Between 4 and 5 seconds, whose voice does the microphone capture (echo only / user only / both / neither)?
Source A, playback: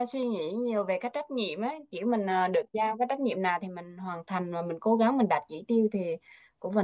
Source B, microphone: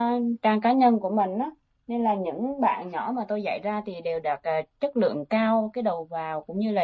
user only